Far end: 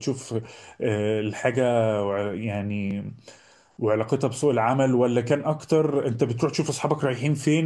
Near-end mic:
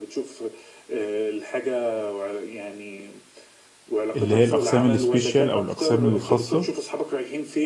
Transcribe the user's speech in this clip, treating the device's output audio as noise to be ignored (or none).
اللي هي الأقسام السبيشال أو الأقسام الخاصة